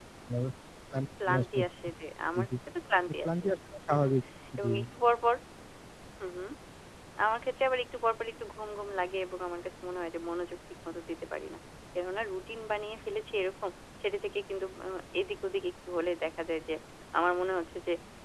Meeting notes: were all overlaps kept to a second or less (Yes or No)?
Yes